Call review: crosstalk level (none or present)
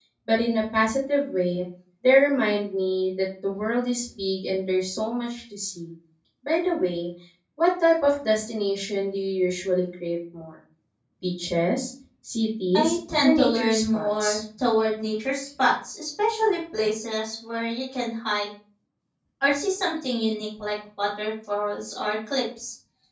present